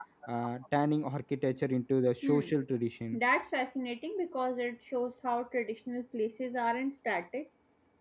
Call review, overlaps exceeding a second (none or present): none